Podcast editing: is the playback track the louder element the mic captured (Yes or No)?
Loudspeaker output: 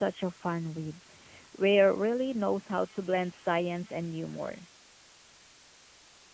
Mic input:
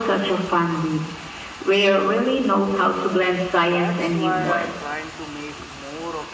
Yes